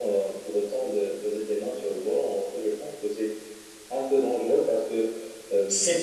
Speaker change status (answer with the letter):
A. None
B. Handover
B